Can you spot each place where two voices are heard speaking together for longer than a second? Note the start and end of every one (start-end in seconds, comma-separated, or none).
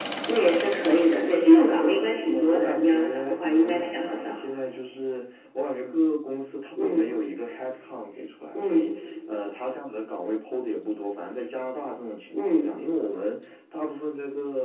2.3-4.3